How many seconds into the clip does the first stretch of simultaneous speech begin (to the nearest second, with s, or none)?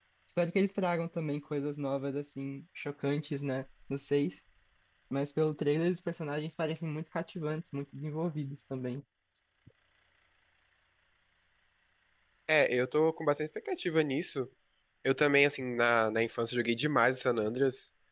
none